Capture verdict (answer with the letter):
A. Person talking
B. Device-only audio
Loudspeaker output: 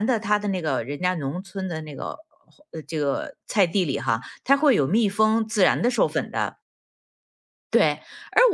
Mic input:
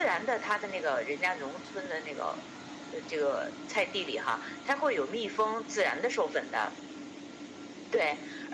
B